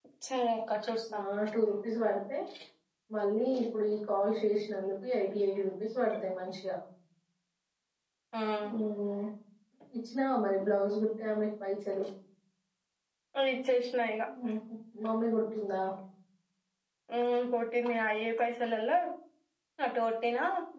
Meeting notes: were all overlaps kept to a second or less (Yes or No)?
Yes